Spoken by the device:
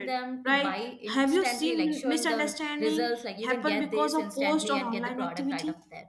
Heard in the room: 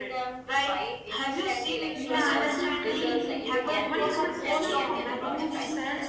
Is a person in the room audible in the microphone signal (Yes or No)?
Yes